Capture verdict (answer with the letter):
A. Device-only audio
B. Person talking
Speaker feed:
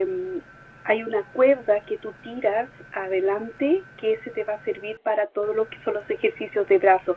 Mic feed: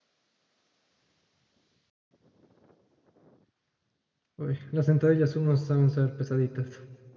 B